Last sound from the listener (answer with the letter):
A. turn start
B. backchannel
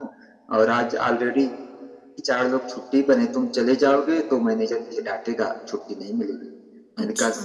B